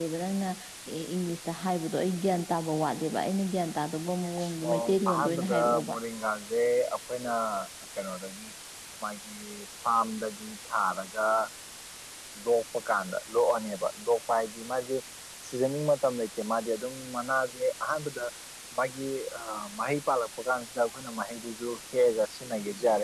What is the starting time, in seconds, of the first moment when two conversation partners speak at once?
4.7 s

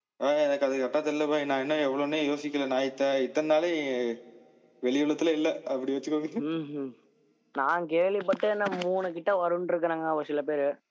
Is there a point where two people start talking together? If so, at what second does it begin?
none

